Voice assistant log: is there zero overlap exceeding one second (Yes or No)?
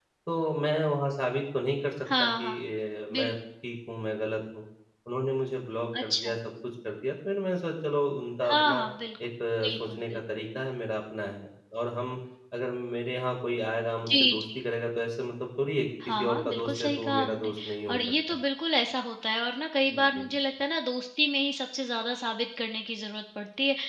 No